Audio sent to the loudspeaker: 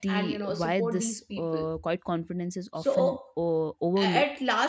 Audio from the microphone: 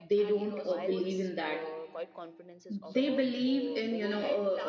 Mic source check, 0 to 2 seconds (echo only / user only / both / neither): both